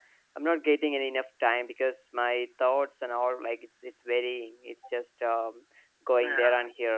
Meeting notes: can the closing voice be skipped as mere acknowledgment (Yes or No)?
Yes